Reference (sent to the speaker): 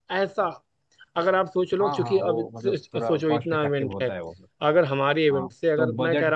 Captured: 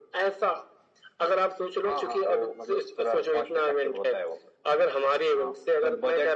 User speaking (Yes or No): No